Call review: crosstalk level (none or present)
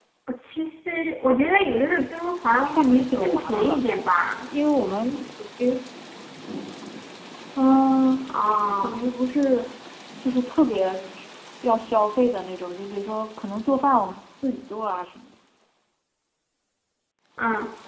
present